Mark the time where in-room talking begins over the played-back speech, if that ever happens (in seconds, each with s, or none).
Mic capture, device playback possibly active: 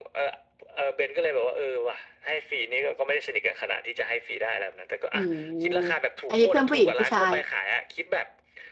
5.1 s